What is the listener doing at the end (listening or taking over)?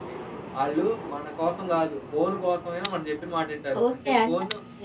taking over